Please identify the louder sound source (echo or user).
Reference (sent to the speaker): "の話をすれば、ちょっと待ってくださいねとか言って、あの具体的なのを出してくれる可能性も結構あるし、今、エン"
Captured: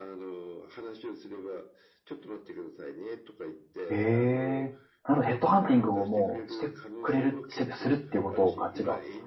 user